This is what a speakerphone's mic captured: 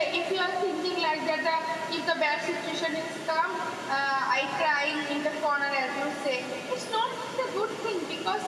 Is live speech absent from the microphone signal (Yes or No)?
Yes